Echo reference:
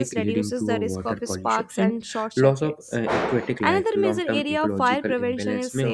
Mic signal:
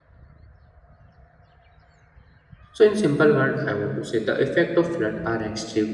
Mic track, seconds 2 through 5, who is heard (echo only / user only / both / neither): user only